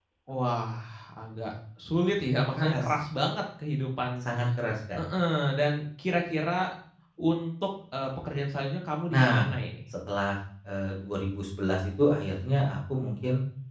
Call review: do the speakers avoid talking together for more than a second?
Yes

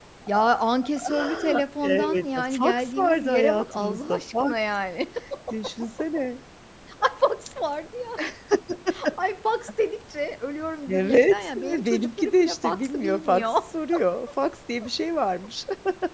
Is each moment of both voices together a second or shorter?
No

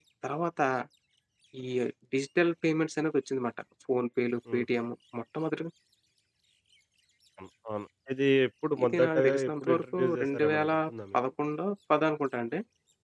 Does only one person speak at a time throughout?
No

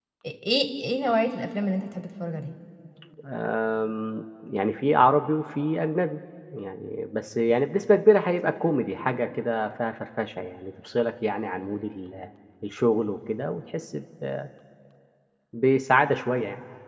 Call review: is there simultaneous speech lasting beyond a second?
No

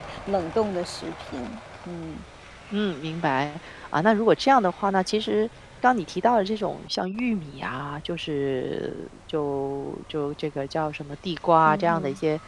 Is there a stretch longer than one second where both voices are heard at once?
No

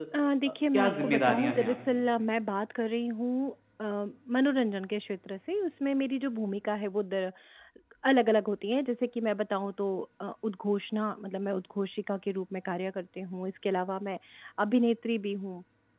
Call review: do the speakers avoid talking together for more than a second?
No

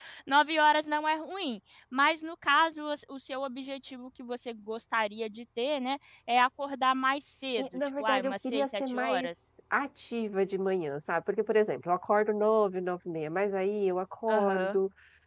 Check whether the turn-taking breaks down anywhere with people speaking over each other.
Yes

